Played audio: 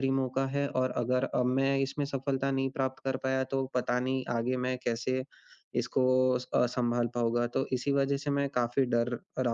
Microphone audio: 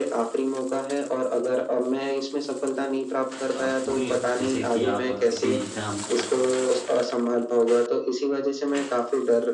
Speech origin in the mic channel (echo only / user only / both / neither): both